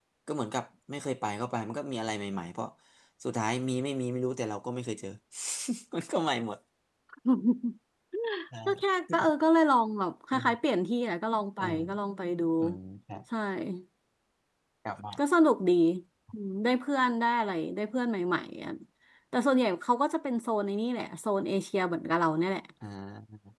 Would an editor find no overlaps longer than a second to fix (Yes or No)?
Yes